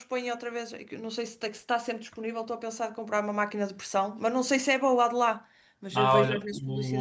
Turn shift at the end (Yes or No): Yes